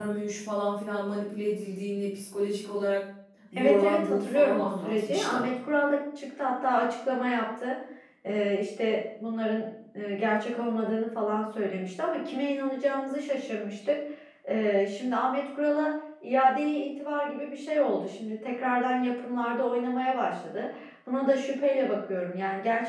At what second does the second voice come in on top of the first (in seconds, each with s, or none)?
3.6 s